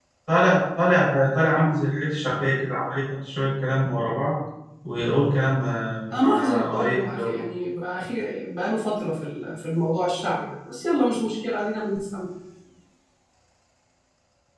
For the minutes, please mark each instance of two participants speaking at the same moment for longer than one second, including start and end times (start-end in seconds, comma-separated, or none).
6.1-7.3